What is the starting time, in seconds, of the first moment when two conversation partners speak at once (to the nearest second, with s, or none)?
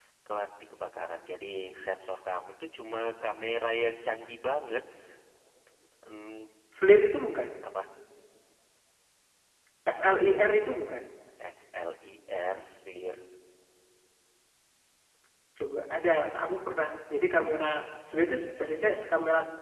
none